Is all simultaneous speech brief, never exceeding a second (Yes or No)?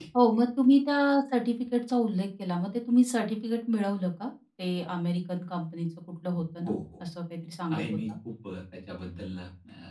Yes